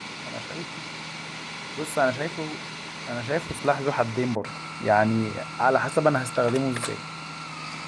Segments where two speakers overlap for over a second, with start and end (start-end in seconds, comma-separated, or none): none